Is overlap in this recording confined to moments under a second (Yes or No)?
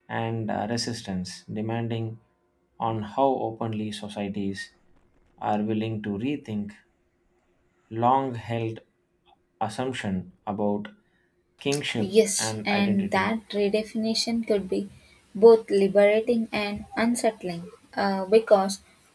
No